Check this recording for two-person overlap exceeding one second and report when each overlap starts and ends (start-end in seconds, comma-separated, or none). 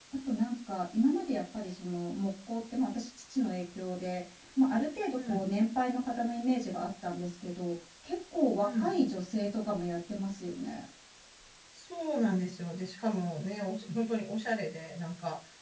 none